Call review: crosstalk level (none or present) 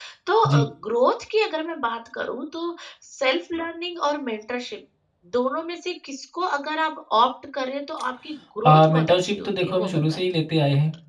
present